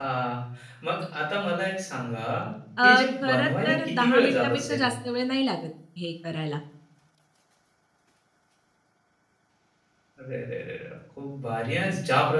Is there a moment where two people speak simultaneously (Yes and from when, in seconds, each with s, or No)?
Yes, from 2.8 s